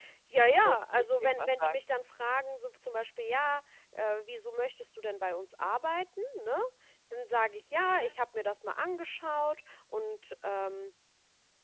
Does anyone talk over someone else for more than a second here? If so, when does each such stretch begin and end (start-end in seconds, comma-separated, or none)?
0.6-1.8